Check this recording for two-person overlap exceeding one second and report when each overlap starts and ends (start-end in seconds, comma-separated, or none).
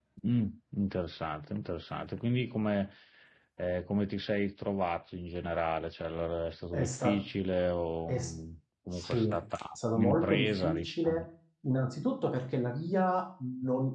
9.9-11.2